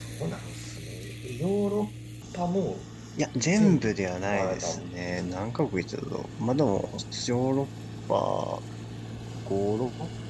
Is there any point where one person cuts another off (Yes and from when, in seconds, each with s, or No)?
Yes, from 3.4 s